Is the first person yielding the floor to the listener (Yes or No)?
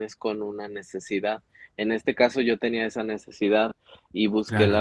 No